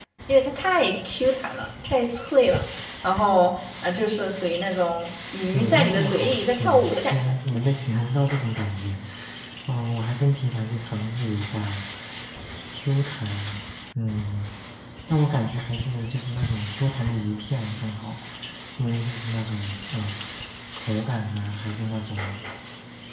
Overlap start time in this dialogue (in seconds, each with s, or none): 5.5 s